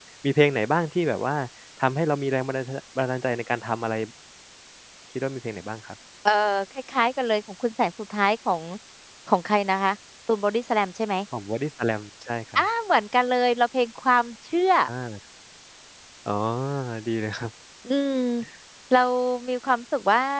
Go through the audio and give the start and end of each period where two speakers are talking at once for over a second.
none

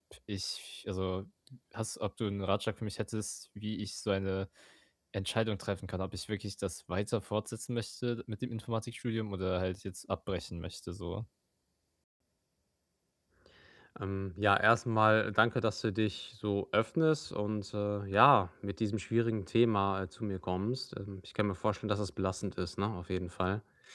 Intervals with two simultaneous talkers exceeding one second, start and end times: none

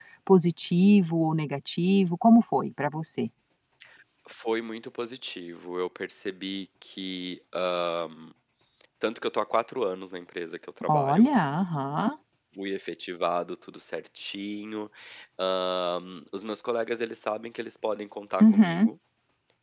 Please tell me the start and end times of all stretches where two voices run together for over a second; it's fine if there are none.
none

